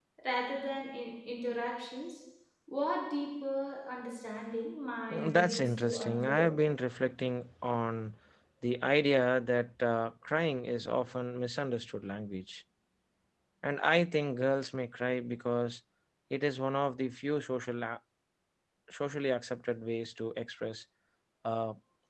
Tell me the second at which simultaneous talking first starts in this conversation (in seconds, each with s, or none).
5.1 s